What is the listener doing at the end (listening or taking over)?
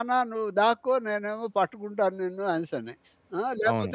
listening